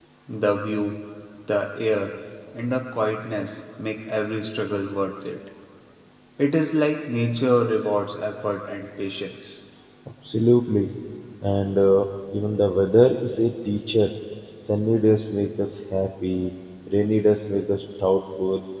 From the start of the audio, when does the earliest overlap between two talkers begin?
none

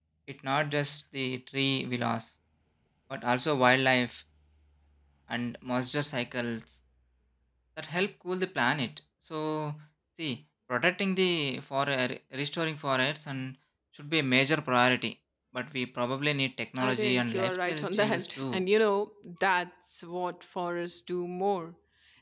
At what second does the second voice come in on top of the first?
16.8 s

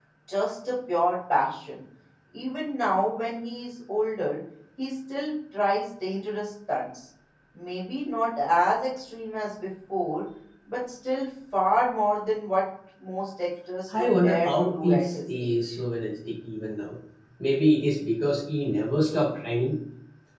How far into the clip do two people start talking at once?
13.9 s

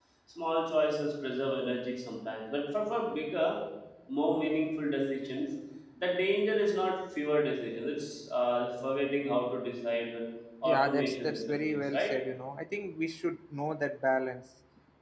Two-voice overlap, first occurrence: 10.7 s

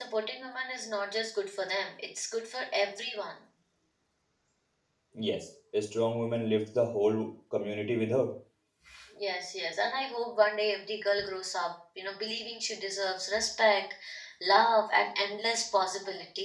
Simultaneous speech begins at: none

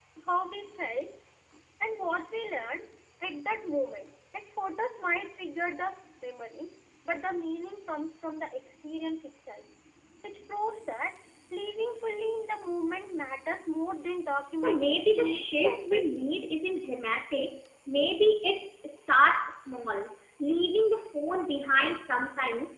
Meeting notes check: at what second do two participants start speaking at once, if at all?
14.6 s

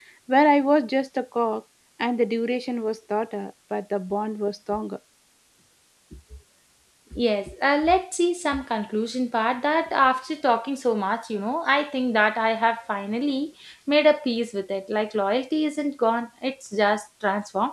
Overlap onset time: none

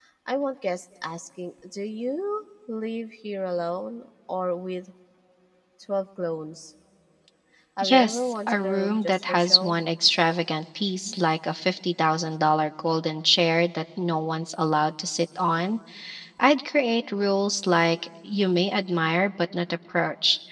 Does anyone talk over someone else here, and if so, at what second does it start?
7.8 s

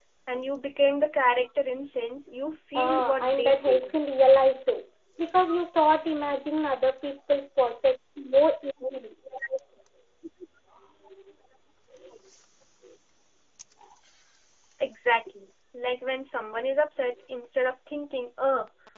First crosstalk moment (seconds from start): 2.7 s

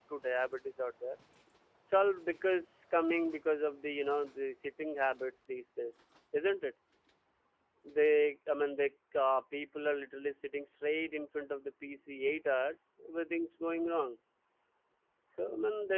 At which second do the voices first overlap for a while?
none

